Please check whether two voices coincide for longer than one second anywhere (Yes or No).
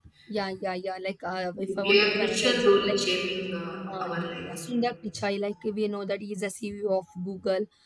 Yes